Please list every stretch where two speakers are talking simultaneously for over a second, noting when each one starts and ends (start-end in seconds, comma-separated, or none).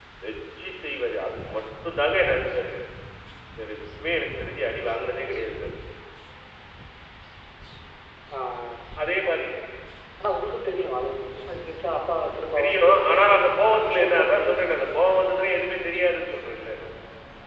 12.6-14.7